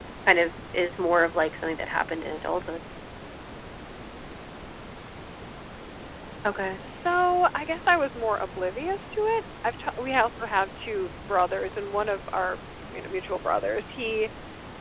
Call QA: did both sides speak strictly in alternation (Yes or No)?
Yes